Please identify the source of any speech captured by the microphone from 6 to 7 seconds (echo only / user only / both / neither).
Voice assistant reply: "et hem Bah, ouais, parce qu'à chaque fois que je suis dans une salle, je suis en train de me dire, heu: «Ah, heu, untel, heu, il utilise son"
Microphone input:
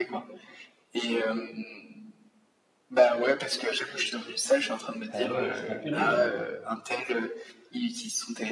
both